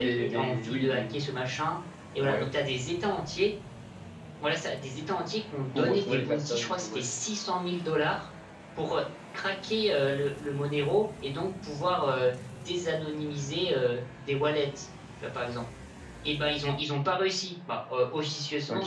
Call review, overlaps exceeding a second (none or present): present